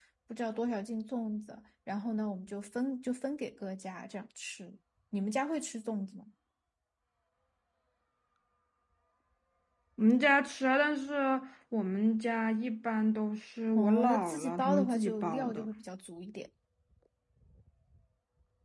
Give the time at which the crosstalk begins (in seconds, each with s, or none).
13.8 s